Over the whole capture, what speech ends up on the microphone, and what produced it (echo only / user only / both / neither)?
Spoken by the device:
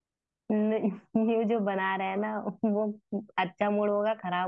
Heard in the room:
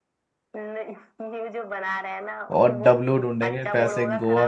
both